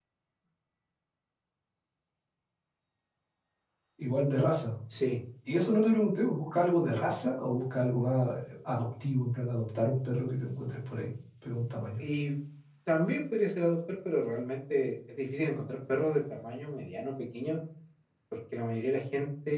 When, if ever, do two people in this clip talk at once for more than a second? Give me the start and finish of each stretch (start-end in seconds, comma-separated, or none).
none